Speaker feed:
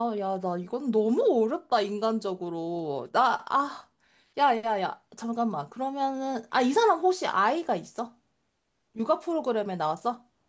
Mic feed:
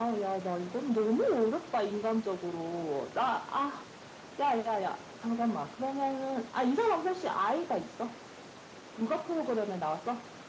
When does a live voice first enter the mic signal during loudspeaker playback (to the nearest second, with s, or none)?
none